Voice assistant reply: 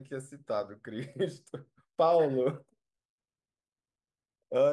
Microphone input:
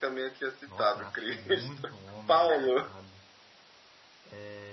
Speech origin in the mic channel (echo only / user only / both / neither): both